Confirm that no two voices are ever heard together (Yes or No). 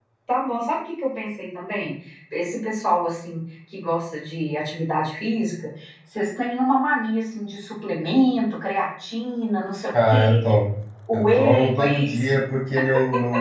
No